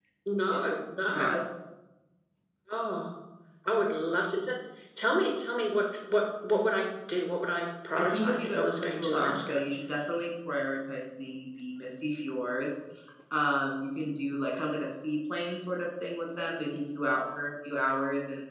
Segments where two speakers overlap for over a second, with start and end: 8.0-9.6

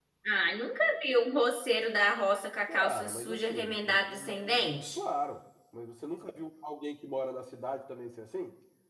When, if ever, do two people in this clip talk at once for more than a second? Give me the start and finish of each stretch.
2.7-5.0

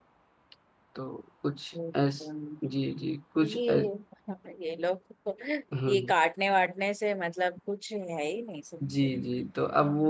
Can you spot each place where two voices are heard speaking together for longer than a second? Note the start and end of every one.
none

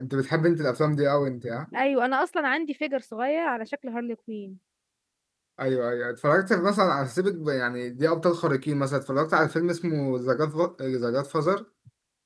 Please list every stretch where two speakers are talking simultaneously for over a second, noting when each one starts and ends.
none

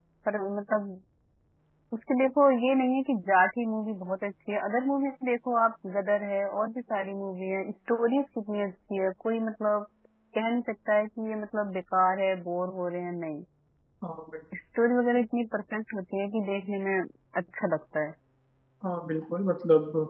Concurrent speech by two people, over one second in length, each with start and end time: none

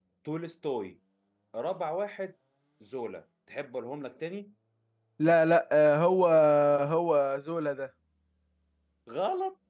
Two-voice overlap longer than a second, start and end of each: none

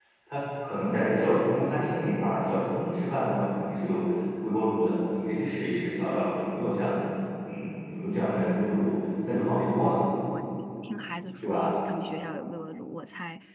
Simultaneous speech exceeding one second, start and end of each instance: none

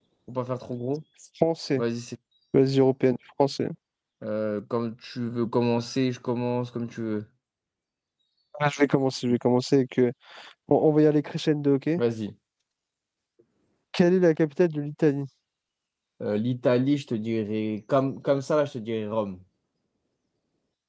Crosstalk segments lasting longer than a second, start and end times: none

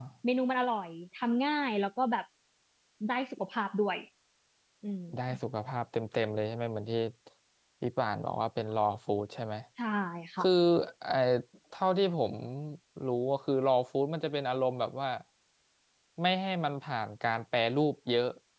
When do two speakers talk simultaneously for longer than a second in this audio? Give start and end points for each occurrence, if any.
none

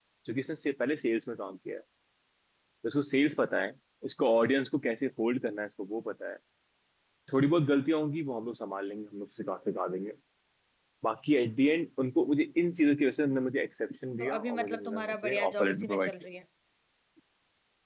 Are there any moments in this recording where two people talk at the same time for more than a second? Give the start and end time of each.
14.2-16.1

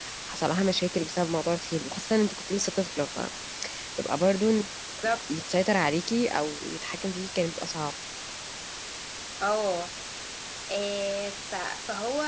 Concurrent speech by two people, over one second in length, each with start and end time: none

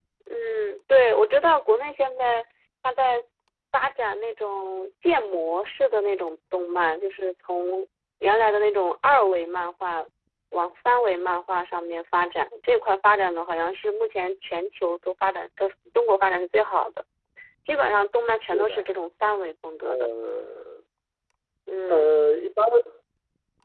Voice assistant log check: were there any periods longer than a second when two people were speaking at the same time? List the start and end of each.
none

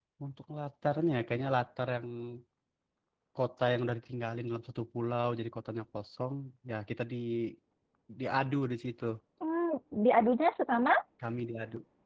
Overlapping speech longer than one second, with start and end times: none

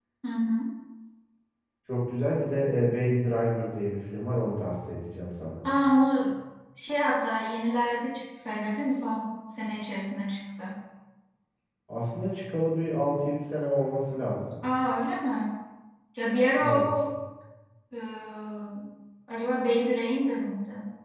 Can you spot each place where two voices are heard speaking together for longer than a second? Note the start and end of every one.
none

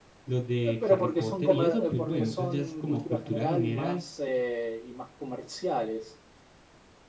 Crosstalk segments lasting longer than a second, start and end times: 0.6-4.0

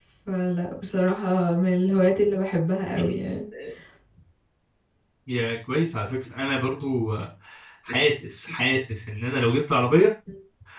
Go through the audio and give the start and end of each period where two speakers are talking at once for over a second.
none

